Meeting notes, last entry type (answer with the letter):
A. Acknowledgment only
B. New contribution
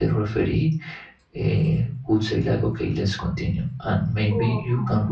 A